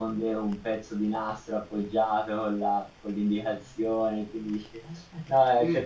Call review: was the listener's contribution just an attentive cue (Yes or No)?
Yes